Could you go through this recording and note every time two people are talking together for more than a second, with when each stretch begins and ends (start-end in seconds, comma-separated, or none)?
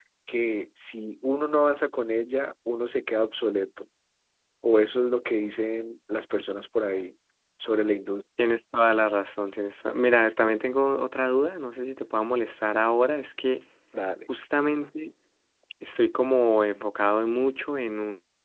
none